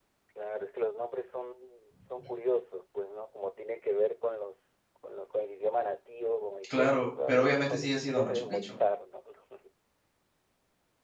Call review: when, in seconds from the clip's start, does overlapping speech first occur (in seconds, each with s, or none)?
6.6 s